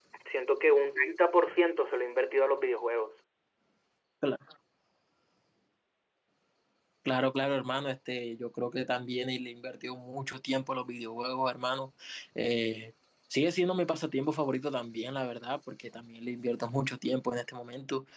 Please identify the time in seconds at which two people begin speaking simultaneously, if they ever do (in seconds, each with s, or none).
none